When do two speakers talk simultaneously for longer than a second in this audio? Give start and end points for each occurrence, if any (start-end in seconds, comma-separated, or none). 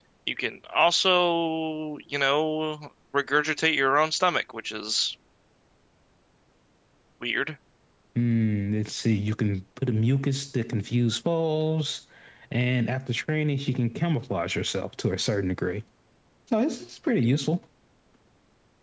none